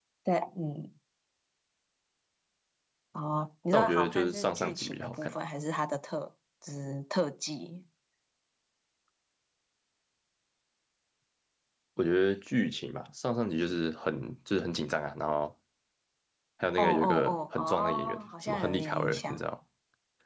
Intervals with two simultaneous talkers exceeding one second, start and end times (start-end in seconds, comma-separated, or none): 3.7-5.3, 16.8-19.5